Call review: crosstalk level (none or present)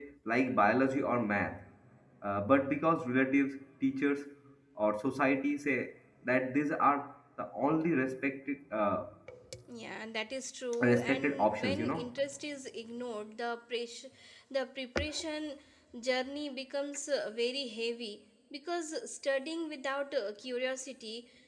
present